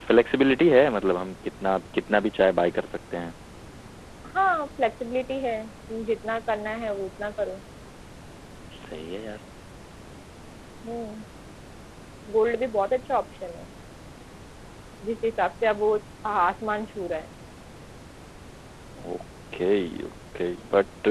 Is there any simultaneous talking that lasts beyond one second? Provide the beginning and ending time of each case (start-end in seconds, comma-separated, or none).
none